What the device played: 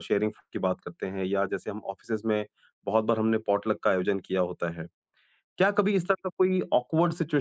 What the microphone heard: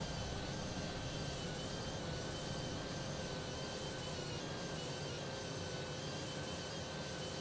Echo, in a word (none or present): none